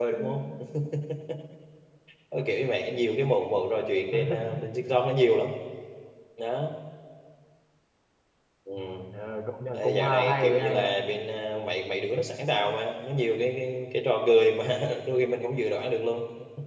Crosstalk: present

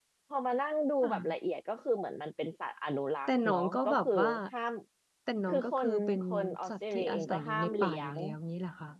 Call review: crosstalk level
present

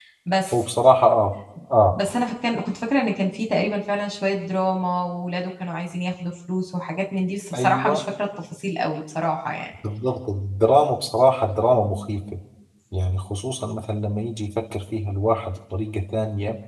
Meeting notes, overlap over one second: none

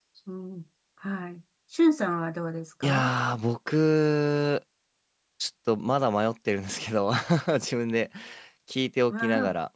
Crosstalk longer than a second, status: none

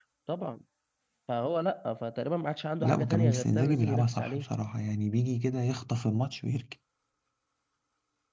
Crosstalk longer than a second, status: present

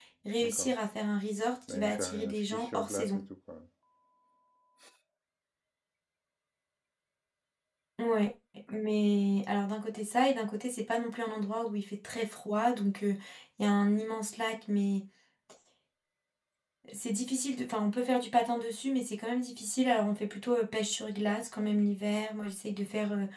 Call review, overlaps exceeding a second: present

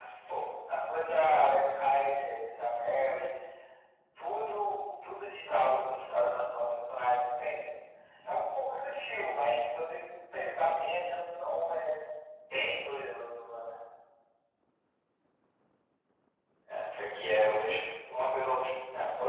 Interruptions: none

